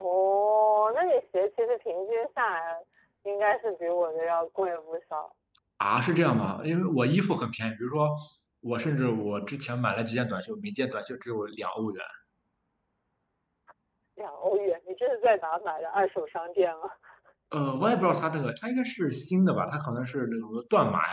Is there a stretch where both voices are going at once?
No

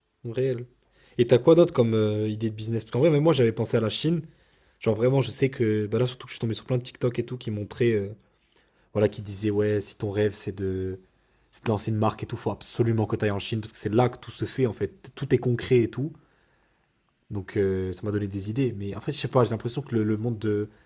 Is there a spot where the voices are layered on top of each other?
No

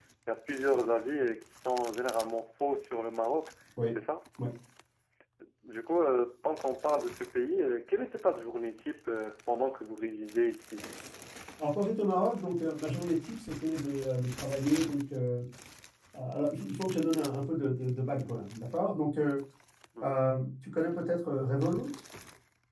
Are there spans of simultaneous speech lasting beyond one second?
No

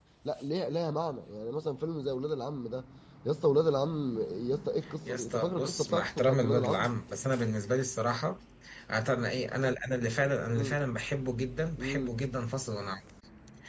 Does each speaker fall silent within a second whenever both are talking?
No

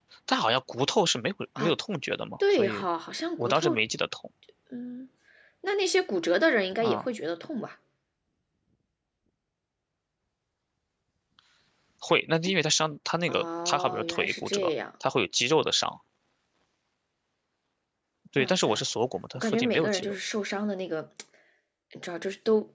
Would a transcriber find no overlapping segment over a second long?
No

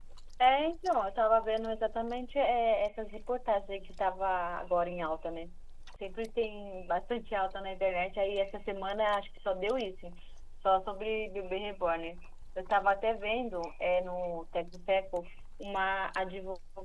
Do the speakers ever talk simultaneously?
No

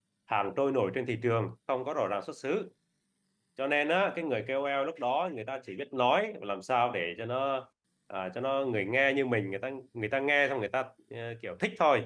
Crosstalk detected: No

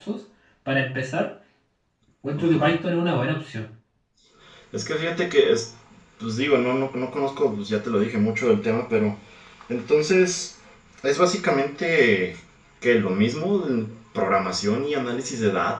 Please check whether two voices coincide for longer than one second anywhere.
No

